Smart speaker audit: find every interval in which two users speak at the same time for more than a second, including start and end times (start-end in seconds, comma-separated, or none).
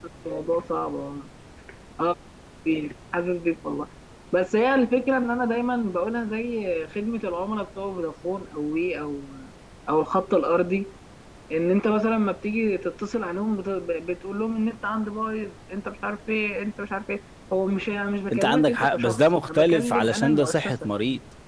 18.3-20.7